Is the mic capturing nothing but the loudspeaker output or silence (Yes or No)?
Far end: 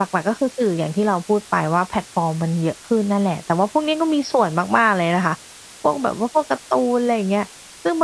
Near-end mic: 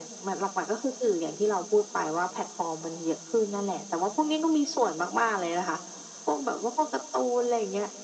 Yes